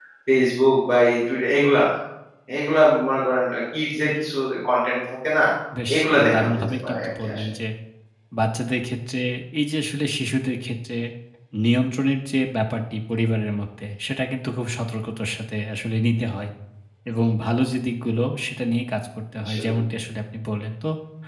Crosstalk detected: Yes, from 5.9 s

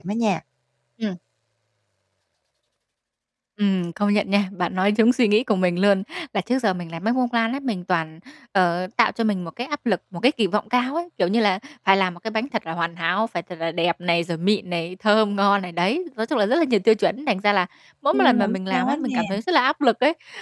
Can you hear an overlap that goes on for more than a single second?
Yes, from 18.1 s

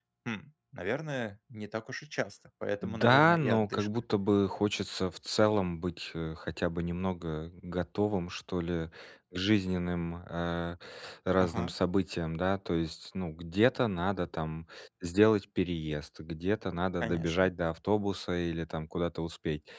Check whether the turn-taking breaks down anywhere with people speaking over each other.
Yes, from 2.8 s

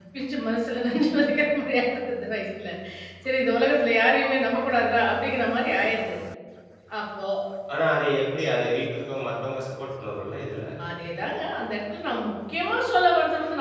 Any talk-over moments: No

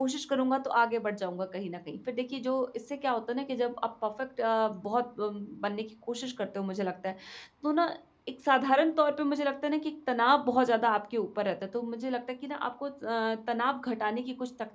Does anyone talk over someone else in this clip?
No

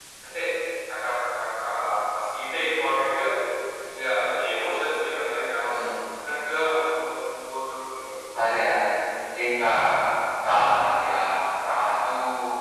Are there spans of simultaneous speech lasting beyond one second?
No

